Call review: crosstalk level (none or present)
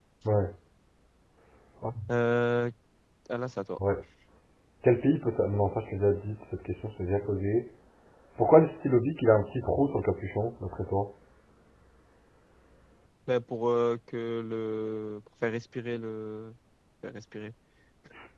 none